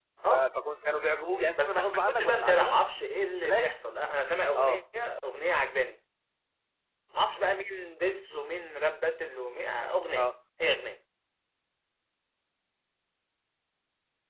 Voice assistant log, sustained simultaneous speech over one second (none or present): present